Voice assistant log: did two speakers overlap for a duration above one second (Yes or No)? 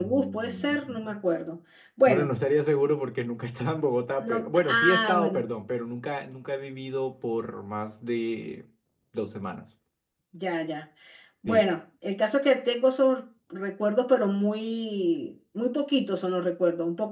Yes